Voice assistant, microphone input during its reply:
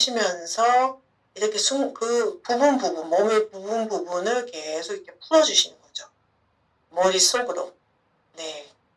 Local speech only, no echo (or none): none